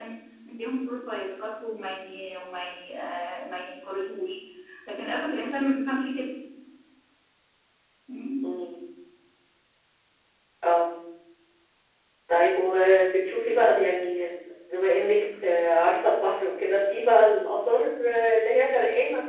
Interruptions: none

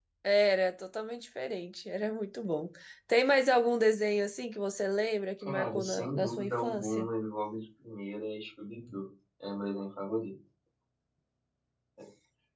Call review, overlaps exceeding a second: present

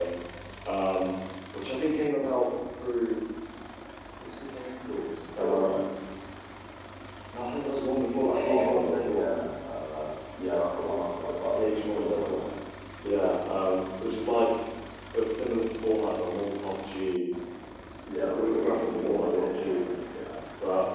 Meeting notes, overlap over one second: present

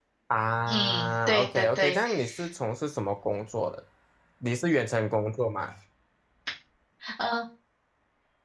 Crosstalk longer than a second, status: present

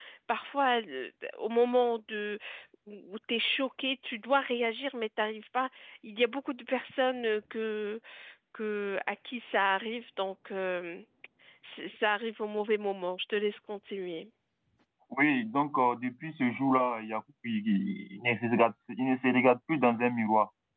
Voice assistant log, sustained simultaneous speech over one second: none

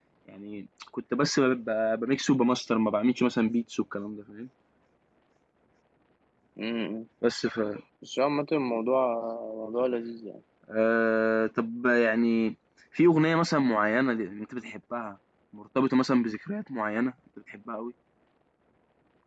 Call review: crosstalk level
none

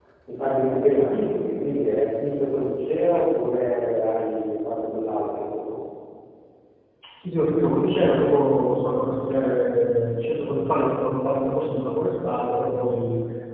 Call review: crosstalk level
none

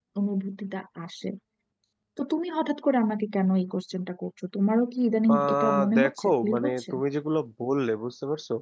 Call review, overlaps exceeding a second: present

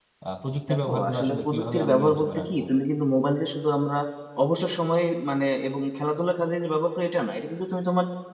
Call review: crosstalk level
present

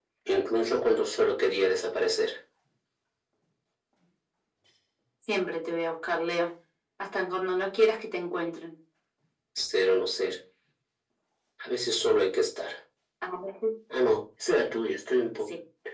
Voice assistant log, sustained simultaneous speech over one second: none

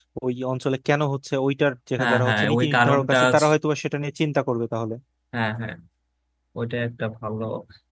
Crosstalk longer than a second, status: present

